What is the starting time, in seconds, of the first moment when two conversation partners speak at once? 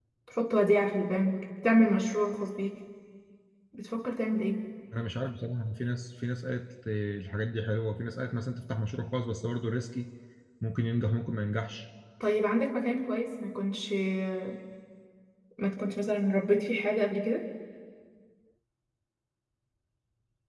none

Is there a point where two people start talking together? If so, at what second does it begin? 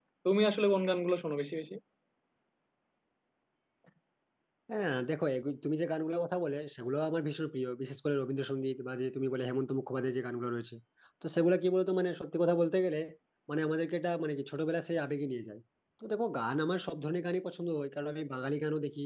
none

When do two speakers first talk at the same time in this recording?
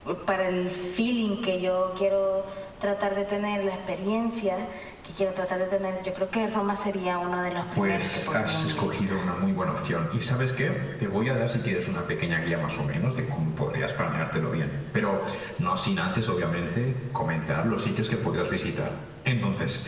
7.6 s

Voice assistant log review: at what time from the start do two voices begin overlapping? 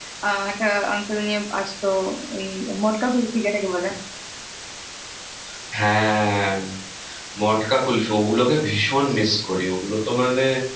none

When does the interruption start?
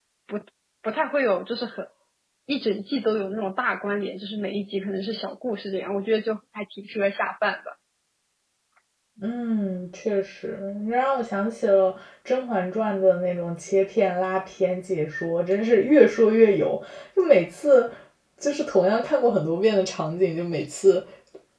none

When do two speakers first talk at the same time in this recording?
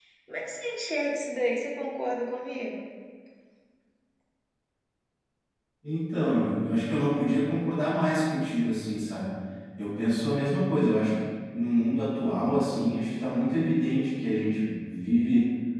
none

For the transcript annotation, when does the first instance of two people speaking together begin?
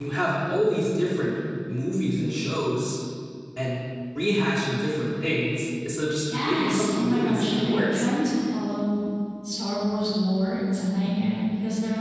6.2 s

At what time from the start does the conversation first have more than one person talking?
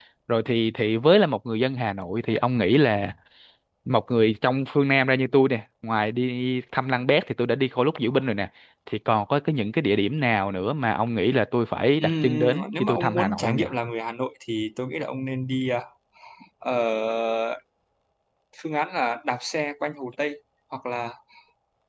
12.0 s

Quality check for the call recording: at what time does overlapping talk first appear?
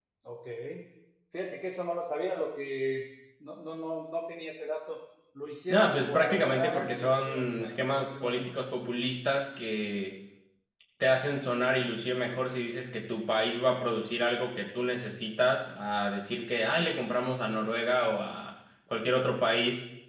5.7 s

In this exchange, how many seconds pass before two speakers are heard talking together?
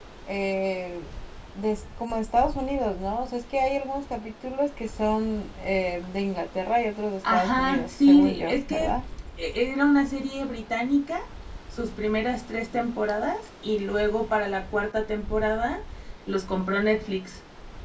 7.2 s

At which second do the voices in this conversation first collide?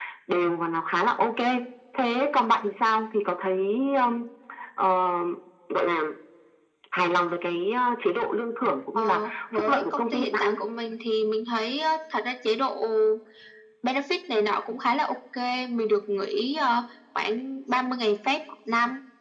9.0 s

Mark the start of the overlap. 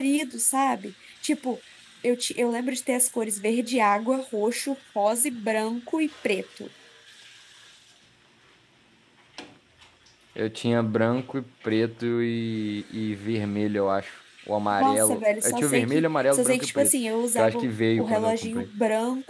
14.7 s

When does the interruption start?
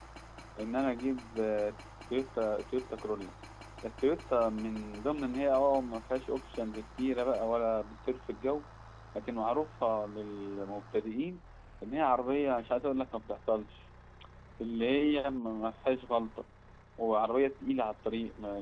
none

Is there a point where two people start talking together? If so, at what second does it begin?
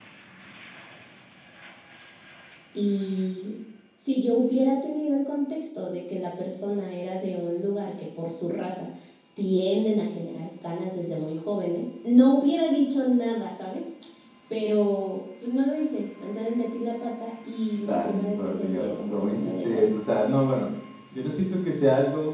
17.9 s

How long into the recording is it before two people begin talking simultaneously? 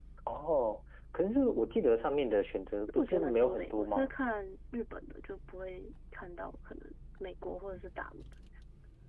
2.9 s

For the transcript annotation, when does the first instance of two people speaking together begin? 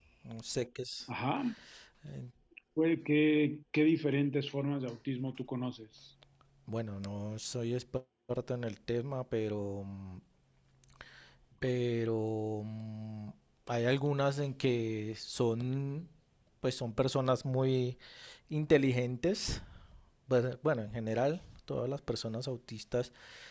none

